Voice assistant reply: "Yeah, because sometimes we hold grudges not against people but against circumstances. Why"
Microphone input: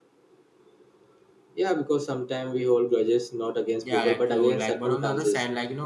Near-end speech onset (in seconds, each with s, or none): 3.8 s